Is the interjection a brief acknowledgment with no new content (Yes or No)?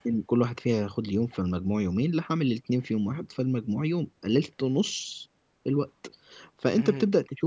Yes